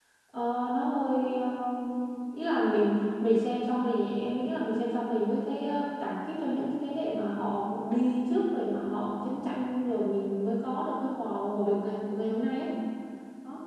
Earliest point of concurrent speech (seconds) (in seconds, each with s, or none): none